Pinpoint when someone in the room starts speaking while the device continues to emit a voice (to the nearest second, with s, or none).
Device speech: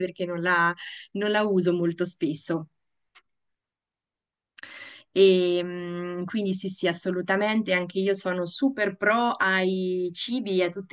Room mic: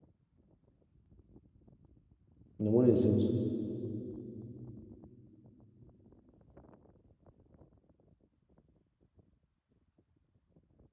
3 s